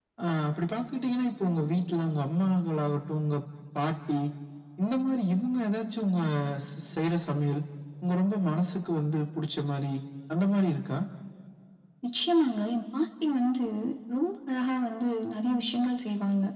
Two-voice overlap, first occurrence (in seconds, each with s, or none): none